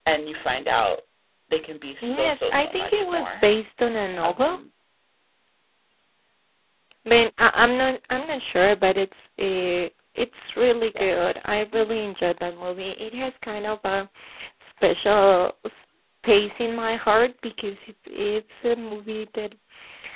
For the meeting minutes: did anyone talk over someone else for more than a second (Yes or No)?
Yes